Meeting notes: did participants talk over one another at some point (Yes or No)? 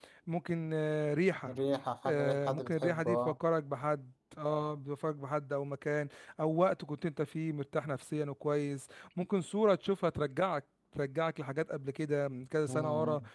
Yes